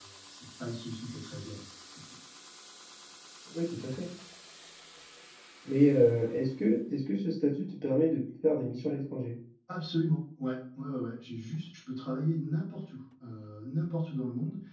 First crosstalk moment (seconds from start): none

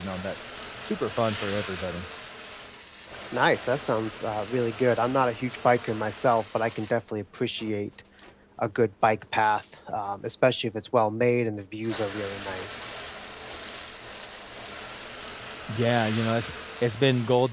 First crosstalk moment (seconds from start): none

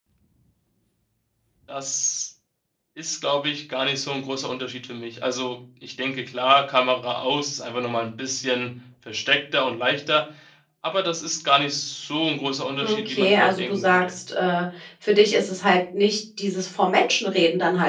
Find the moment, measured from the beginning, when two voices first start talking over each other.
12.8 s

